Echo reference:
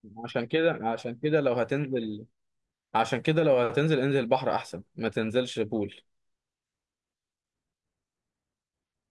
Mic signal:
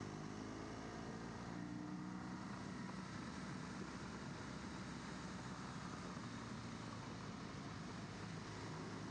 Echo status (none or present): none